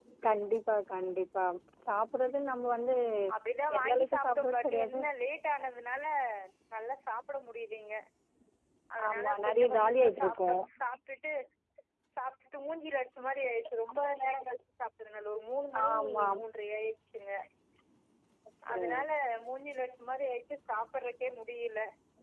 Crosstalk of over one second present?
Yes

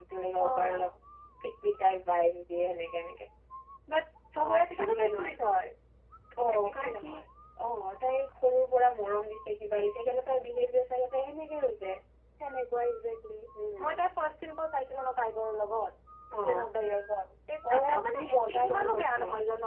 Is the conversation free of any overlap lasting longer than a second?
No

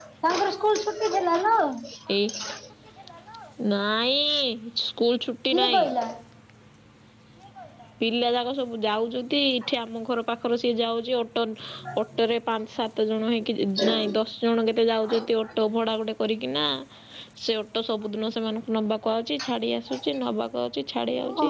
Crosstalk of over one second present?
No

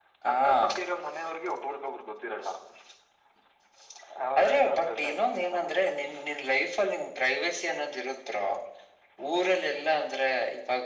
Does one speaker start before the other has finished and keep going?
Yes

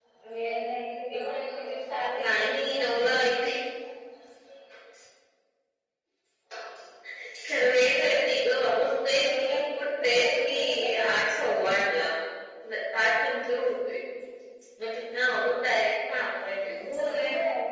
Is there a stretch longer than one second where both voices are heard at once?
Yes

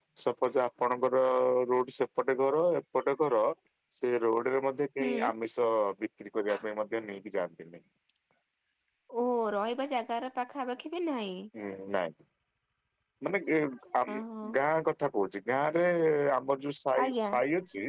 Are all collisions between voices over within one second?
Yes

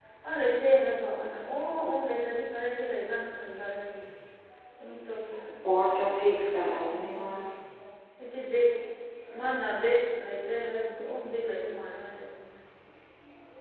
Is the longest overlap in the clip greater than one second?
No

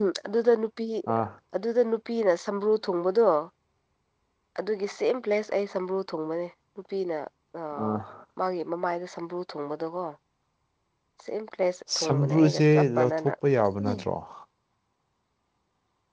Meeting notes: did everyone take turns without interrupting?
No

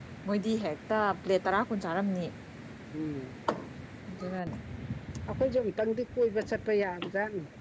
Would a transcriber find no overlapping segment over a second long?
Yes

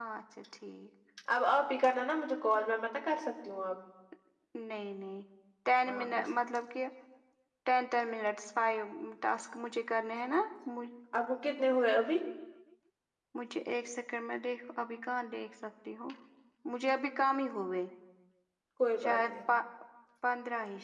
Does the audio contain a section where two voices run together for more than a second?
No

